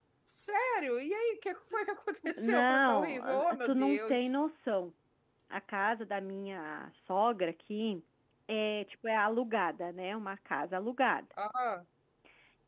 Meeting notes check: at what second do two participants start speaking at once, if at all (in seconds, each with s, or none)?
2.4 s